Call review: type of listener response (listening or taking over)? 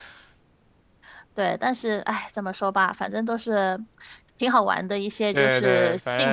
taking over